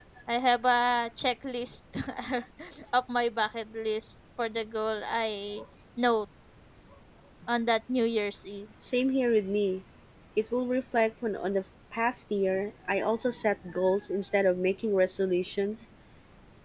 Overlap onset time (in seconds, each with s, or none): none